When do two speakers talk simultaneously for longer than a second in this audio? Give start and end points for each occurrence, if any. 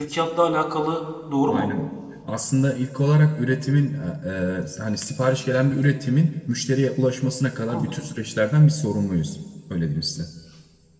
none

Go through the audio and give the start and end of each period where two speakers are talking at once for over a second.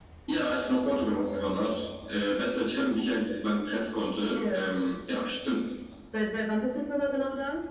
none

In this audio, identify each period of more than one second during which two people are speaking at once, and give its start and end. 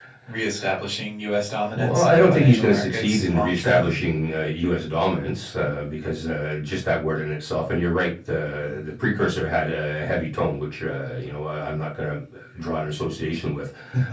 1.8-4.0

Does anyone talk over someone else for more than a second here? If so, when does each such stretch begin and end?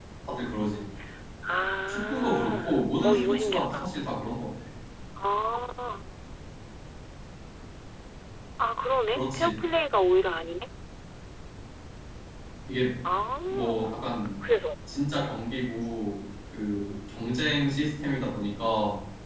1.9-3.9

